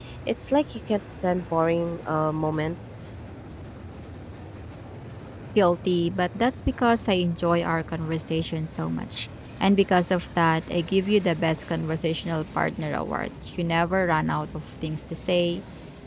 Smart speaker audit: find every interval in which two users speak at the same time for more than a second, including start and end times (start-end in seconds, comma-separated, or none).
none